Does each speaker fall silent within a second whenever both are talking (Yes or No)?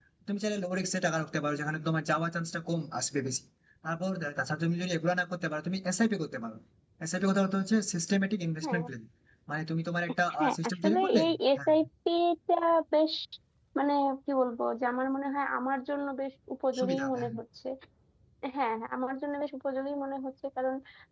No